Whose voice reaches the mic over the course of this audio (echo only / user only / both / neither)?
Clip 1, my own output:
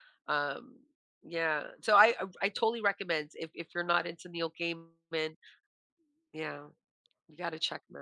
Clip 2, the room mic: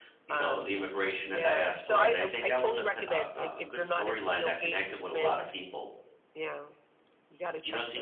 both